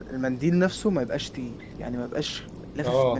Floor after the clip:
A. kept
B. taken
B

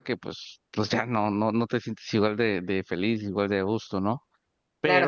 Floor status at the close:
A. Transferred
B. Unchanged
A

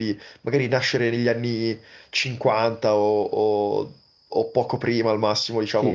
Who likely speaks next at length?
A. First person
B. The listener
B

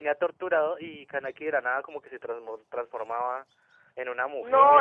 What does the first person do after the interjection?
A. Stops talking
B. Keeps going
A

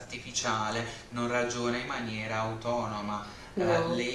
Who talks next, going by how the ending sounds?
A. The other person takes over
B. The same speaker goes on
B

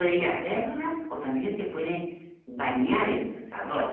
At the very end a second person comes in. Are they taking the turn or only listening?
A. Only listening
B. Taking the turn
B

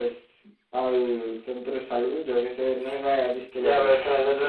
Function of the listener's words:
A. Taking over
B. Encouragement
A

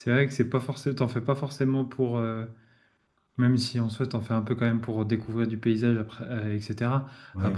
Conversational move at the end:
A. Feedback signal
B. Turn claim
A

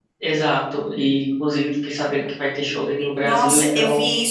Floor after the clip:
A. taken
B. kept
A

